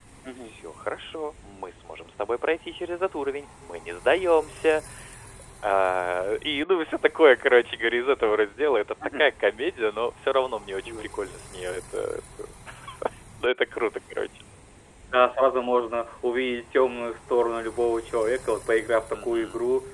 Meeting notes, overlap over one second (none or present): none